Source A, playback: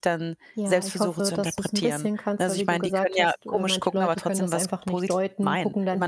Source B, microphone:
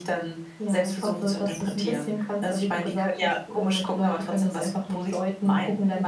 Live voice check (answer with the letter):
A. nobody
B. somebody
A